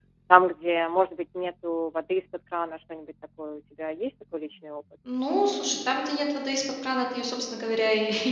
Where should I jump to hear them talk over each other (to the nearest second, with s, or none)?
none